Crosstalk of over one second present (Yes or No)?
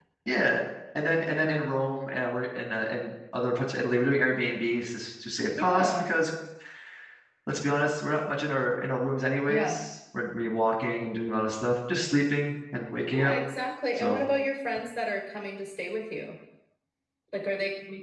No